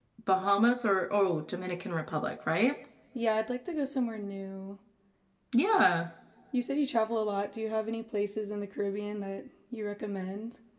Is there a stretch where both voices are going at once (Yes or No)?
No